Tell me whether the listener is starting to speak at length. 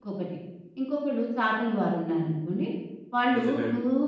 No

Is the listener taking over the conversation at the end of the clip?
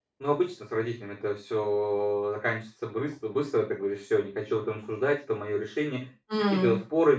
No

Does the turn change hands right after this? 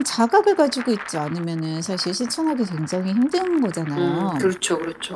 Yes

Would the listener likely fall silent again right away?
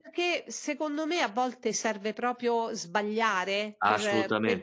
Yes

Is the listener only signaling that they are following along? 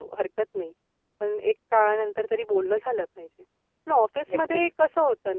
Yes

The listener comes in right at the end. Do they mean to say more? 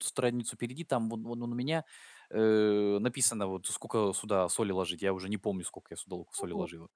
Yes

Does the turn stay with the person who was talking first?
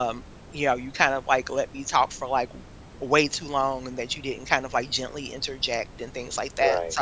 Yes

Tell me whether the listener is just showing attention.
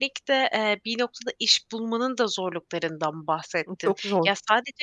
Yes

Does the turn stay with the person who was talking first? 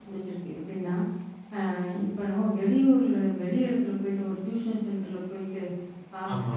Yes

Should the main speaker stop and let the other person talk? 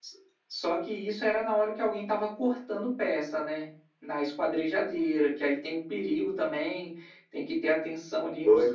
Yes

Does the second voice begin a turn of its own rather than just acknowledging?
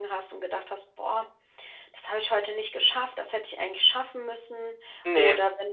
No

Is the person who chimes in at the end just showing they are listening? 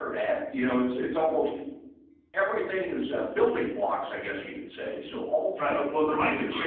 No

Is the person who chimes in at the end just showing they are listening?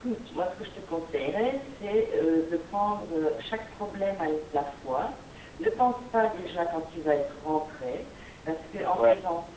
Yes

